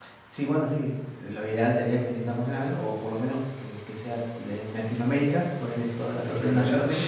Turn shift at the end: Yes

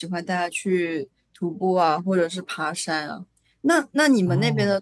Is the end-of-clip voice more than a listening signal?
No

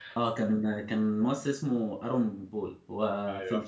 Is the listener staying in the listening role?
Yes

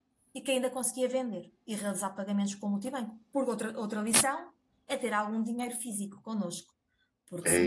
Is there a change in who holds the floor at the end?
Yes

